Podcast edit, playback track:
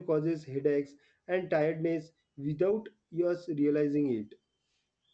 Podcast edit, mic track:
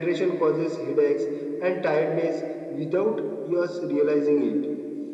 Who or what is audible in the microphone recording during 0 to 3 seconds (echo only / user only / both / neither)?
echo only